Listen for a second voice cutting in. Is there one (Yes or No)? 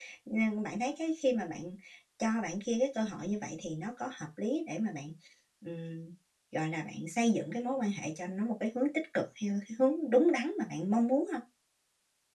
No